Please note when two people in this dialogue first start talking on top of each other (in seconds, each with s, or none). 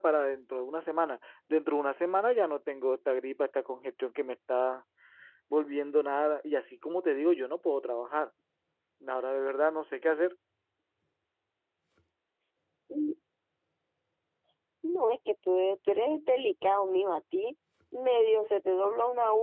none